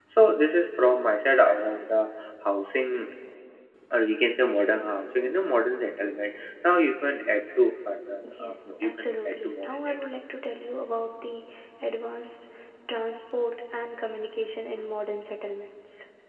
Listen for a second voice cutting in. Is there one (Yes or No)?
Yes